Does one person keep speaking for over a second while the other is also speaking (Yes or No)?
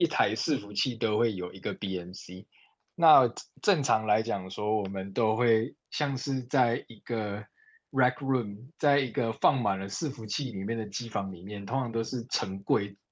No